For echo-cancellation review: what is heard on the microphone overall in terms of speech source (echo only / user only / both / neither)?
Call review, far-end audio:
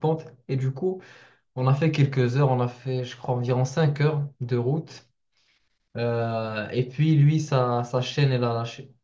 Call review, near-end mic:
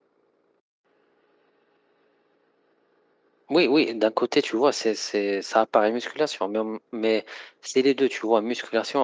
user only